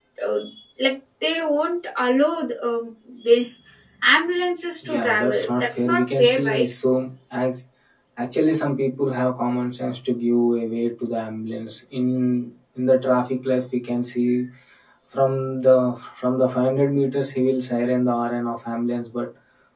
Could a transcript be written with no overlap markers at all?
No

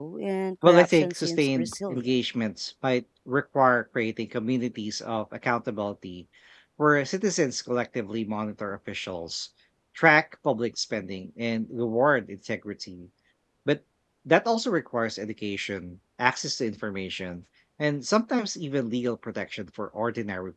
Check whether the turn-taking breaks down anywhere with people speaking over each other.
Yes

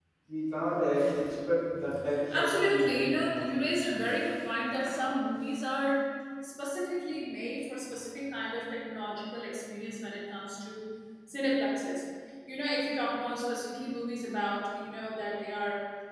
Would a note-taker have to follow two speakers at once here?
Yes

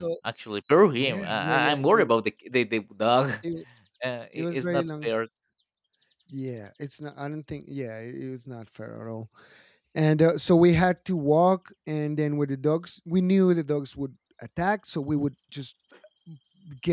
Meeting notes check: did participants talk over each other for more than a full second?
Yes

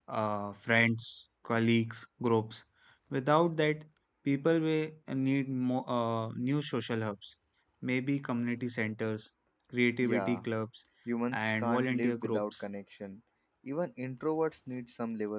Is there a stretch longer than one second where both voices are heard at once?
Yes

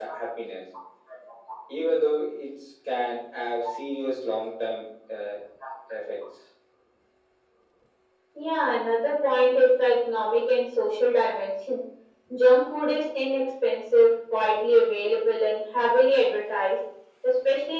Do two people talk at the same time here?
No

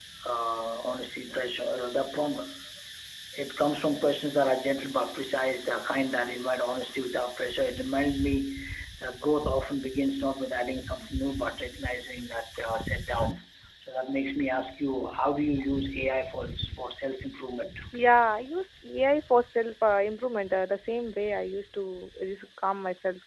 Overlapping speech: No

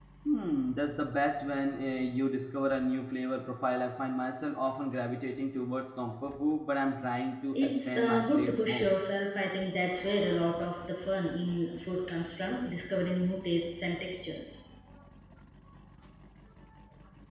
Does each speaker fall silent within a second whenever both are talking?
No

